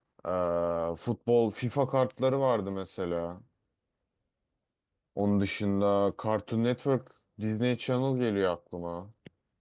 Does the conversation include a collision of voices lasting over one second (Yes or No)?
No